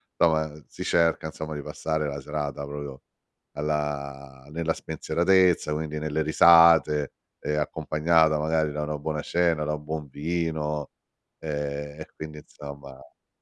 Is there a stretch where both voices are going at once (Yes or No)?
No